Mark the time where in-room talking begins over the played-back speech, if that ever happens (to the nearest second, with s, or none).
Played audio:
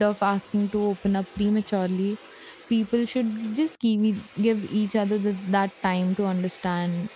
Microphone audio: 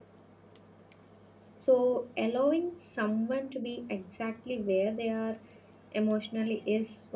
2 s